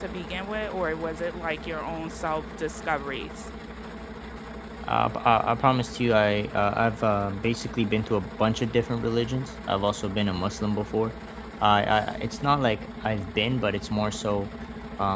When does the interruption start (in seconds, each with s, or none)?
none